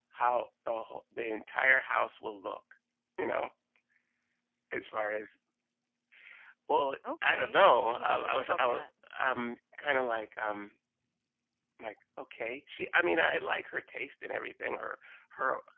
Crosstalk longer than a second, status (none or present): present